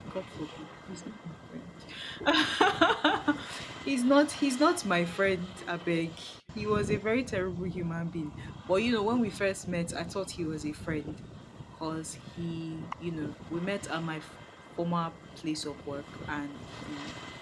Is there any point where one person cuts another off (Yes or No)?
No